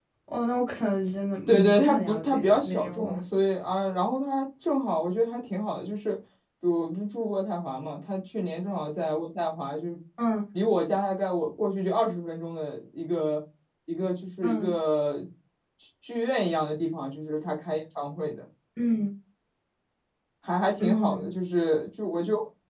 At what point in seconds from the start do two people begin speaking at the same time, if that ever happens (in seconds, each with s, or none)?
1.5 s